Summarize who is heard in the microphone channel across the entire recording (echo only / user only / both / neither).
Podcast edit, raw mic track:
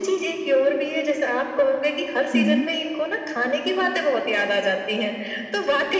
both